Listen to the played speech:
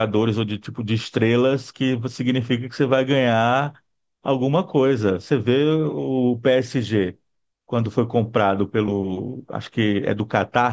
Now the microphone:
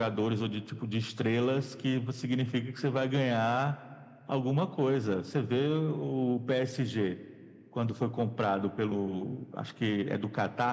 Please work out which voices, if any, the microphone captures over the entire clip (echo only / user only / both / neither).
echo only